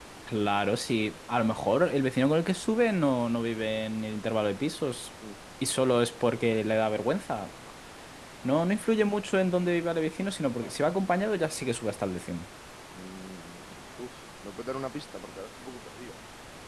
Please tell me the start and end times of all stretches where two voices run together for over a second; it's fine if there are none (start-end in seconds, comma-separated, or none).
none